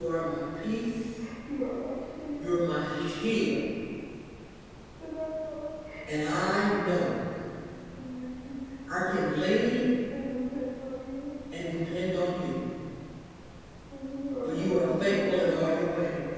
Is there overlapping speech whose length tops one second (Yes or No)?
Yes